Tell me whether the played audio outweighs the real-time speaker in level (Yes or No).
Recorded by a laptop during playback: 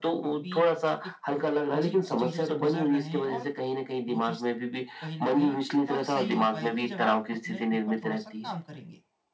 Yes